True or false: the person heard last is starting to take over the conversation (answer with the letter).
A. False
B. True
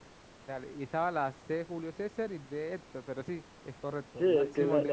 B